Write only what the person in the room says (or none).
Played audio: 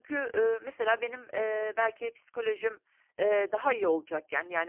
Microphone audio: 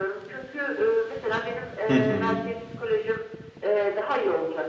Hı hı.